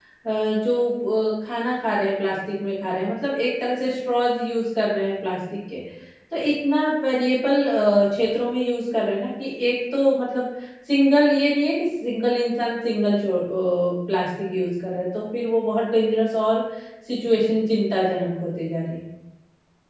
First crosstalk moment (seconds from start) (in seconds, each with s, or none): none